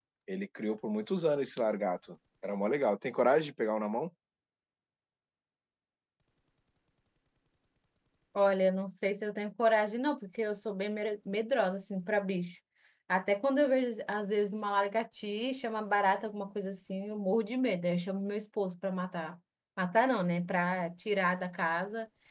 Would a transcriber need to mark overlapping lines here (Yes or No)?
No